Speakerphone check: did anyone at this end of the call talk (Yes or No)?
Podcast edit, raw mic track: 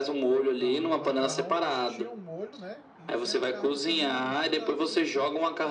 Yes